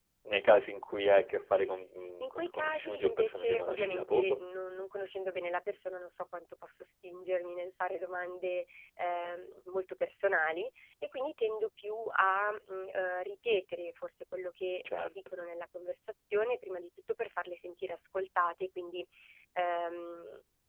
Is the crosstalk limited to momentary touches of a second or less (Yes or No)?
No